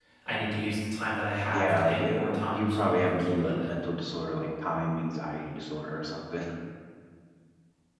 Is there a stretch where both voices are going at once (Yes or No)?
Yes